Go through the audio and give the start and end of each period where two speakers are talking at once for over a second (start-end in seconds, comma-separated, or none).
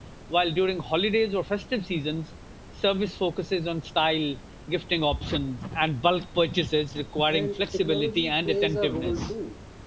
7.3-9.3